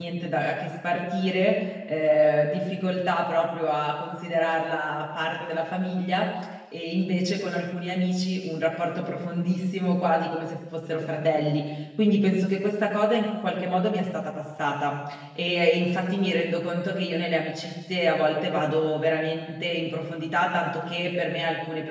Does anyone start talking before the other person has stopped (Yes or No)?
No